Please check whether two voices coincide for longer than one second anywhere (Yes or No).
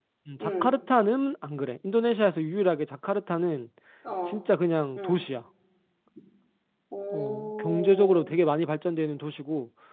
Yes